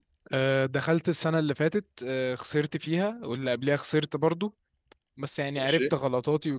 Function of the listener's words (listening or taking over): listening